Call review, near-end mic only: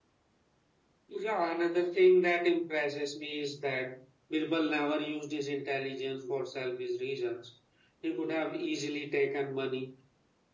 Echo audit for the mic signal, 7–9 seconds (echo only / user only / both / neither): echo only